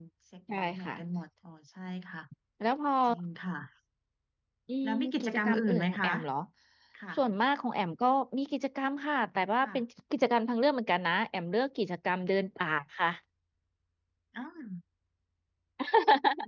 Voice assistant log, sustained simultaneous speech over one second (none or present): present